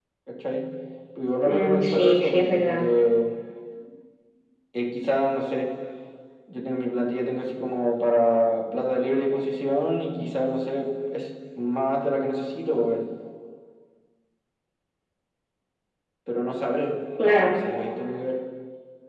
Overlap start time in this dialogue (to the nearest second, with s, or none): 1 s